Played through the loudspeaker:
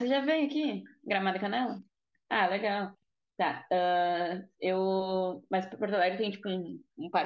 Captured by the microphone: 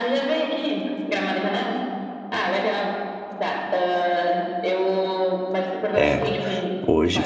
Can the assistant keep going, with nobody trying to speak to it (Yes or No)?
No